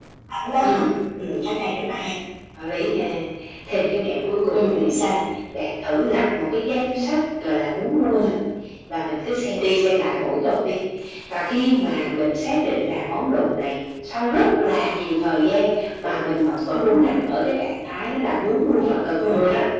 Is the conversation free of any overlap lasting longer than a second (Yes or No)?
Yes